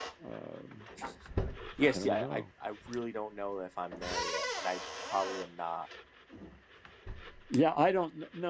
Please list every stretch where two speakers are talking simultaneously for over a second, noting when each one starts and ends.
none

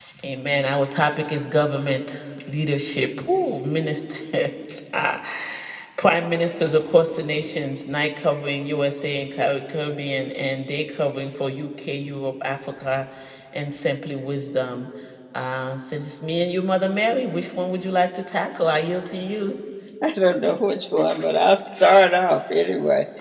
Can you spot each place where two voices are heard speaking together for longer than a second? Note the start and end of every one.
none

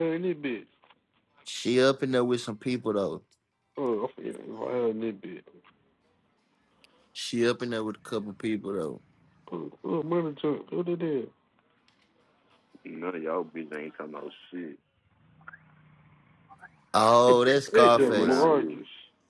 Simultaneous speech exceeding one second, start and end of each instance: 17.3-18.8

